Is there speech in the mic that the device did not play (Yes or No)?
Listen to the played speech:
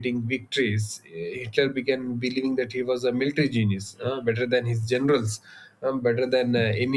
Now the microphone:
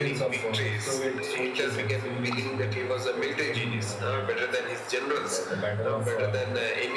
Yes